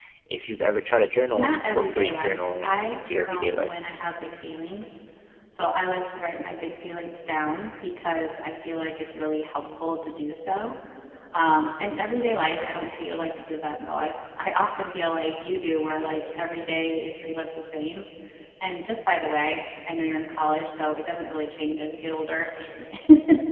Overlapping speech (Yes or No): Yes